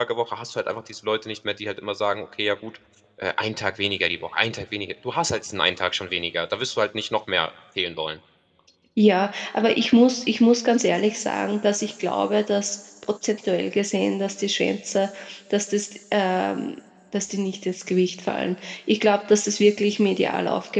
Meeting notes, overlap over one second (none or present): none